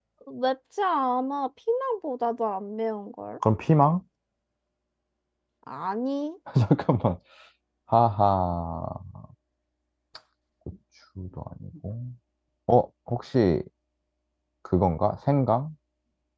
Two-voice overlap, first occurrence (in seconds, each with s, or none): none